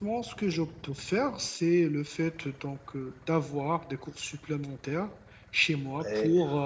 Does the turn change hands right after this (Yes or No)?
No